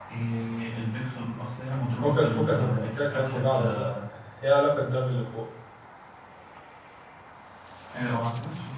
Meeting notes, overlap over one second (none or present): present